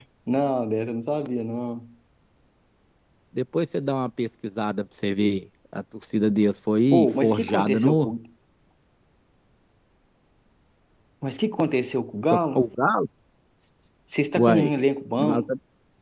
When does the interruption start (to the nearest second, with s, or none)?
7 s